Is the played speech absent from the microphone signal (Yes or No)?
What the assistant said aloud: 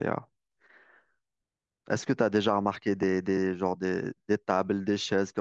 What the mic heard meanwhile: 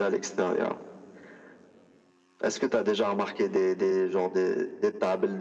No